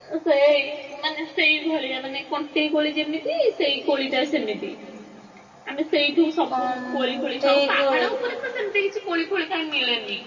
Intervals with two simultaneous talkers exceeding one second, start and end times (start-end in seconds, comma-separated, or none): 6.5-8.1